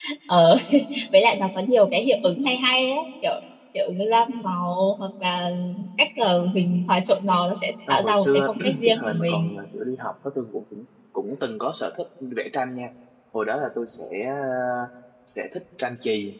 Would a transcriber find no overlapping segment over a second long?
No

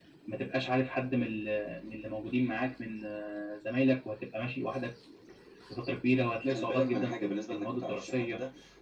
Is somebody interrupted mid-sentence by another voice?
Yes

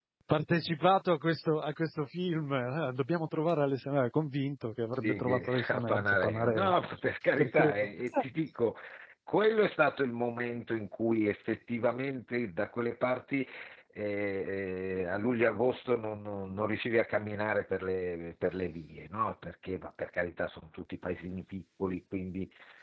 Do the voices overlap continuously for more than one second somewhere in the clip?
Yes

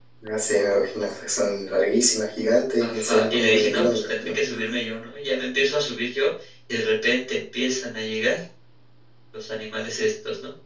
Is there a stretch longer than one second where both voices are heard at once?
Yes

